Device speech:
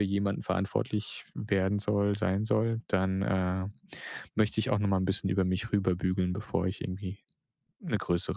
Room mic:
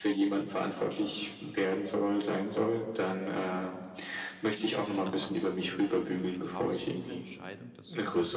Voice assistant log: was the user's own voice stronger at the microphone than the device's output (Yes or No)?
No